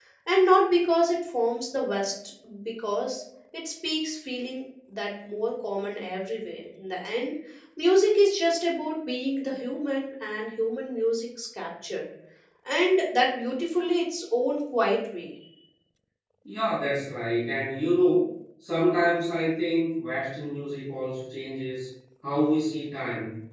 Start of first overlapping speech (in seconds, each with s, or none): none